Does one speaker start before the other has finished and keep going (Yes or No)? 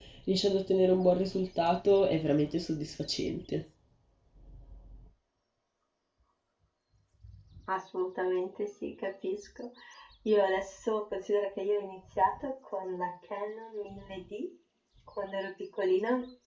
No